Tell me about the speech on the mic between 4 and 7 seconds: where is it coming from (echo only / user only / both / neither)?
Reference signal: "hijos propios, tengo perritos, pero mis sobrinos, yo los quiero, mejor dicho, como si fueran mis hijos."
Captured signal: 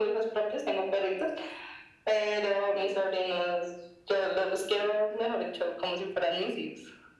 echo only